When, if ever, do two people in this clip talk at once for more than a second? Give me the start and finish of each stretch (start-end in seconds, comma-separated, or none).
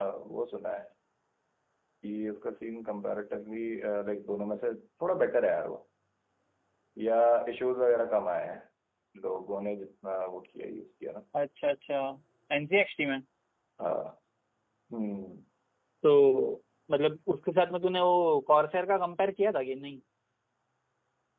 none